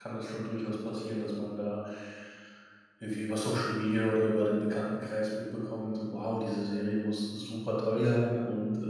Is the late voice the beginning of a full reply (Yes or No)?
No